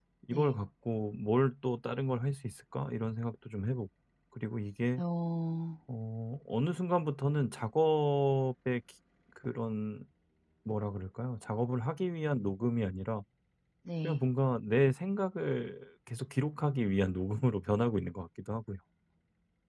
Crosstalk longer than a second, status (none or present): none